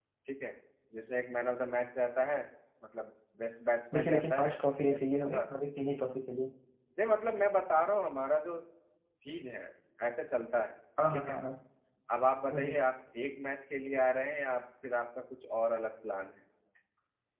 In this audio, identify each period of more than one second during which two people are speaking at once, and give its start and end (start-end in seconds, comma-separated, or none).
3.9-5.4